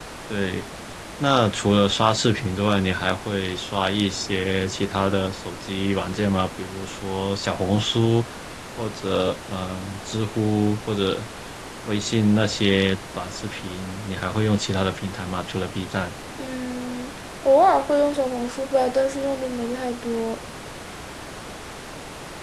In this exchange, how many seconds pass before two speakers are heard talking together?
none

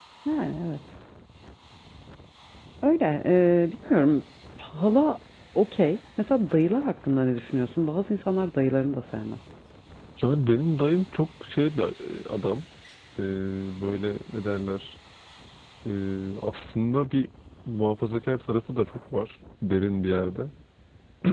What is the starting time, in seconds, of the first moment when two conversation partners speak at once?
none

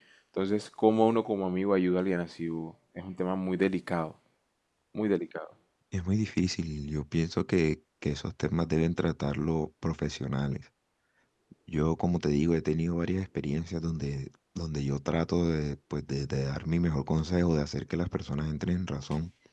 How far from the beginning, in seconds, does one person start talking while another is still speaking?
none

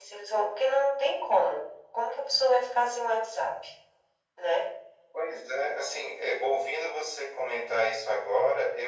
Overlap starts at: none

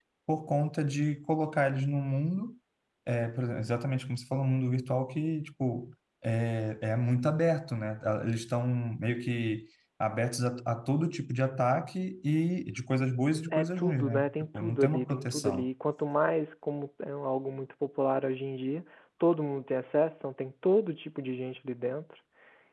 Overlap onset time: 13.5 s

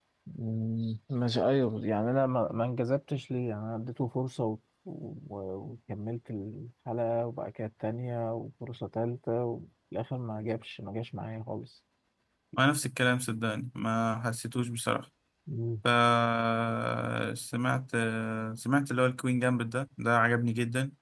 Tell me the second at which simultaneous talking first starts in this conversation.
none

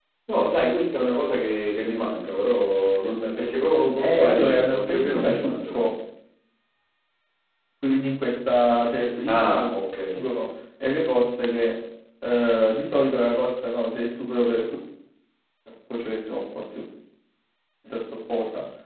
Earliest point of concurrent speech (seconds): 4.0 s

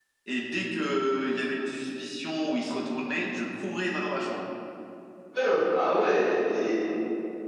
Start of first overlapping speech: none

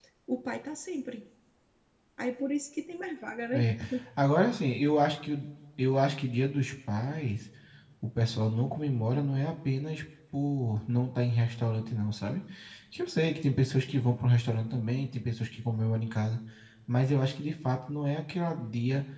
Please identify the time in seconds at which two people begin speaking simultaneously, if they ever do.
none

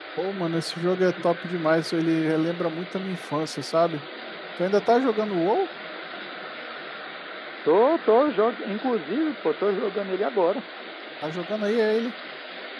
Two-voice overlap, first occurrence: none

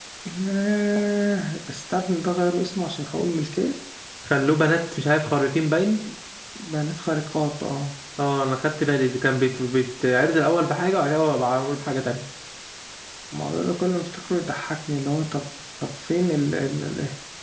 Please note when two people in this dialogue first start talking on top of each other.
none

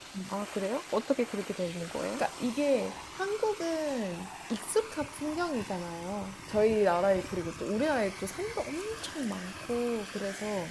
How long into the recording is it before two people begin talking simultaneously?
none

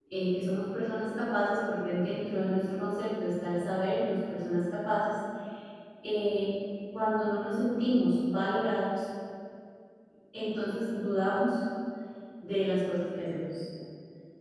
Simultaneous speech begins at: none

